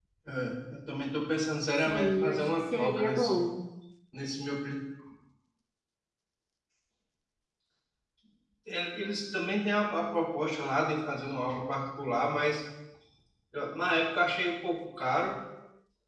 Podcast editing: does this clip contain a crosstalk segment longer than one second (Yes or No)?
Yes